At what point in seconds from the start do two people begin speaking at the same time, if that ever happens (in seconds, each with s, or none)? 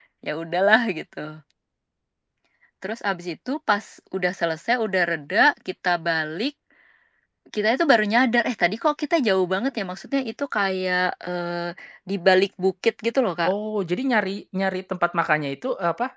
none